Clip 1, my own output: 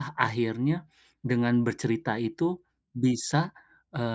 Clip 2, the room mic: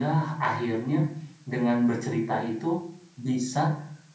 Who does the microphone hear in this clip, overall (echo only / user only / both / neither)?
echo only